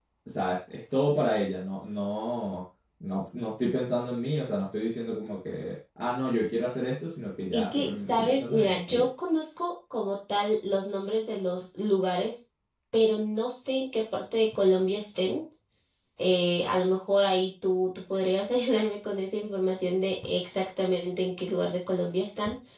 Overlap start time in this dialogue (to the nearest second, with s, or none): 8 s